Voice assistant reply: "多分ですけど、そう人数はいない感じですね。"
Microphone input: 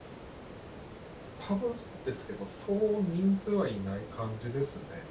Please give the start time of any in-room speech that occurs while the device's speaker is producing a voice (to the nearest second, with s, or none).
none